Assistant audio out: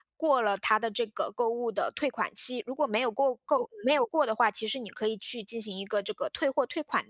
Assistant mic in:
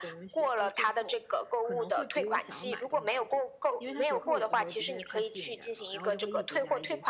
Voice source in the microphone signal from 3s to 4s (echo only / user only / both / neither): both